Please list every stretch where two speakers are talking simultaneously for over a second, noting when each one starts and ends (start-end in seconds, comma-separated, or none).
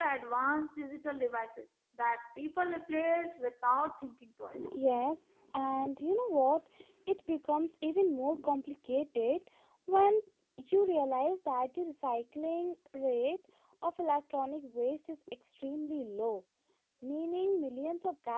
none